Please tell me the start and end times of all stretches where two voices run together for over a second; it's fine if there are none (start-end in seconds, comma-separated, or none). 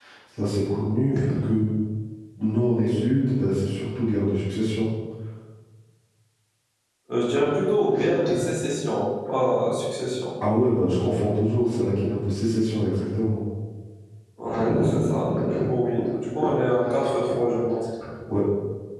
none